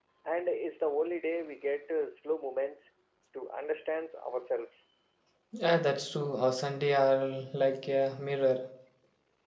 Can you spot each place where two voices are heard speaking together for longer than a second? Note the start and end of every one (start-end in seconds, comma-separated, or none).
none